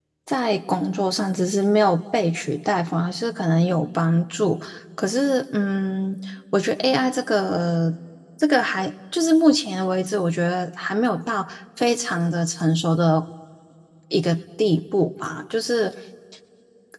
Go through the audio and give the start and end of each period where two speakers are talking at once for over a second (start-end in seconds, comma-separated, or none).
none